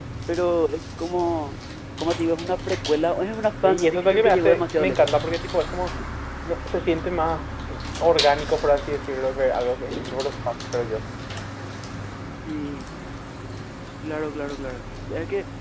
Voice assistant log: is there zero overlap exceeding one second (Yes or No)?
No